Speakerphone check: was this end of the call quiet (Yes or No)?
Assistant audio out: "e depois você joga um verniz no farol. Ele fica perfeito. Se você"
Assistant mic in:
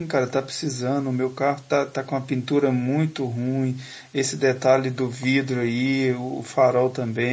No